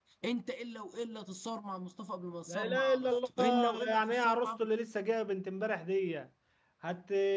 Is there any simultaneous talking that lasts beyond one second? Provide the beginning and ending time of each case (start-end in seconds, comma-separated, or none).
2.5-4.5